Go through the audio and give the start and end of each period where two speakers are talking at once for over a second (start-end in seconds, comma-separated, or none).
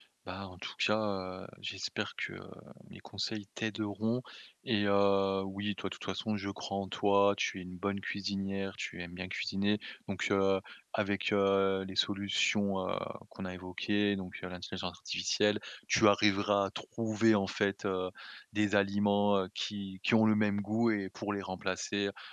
none